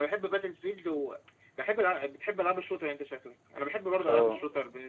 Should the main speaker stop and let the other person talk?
No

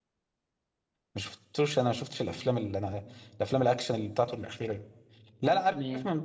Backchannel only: Yes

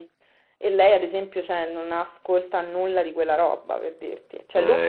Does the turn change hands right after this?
No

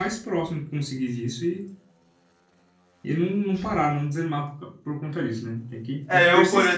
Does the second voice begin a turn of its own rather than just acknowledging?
Yes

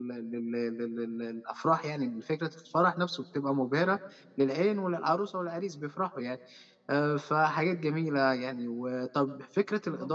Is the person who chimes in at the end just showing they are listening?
Yes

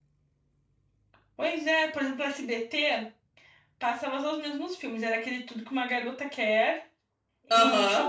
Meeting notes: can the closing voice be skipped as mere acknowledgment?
Yes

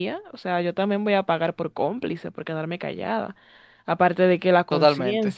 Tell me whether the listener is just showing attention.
Yes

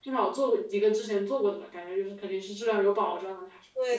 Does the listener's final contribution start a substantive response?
Yes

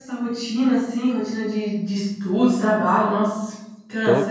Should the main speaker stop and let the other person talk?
Yes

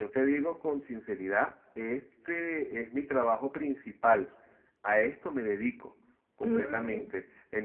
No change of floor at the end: Yes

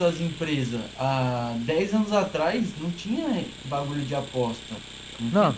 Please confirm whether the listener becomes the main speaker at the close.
Yes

